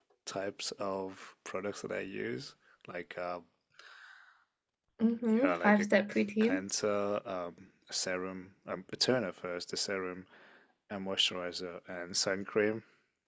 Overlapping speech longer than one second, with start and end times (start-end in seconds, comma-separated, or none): none